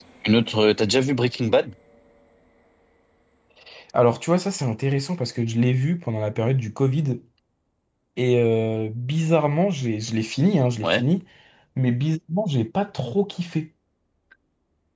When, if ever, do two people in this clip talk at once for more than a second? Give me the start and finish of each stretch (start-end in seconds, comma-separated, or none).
none